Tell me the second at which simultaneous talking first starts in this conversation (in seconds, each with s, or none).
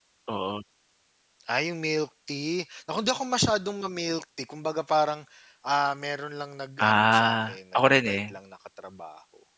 6.8 s